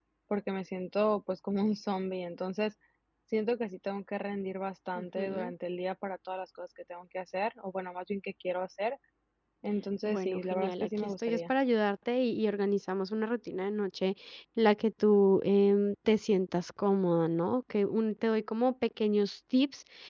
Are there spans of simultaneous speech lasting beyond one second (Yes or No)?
Yes